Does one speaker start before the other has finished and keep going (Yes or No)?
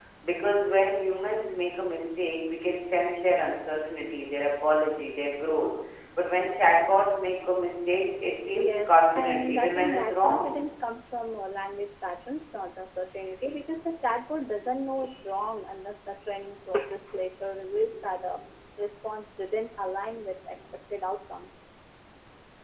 Yes